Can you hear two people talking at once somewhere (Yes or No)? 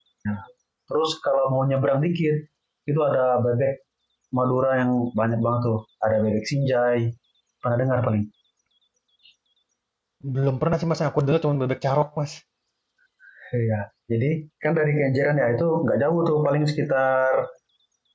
No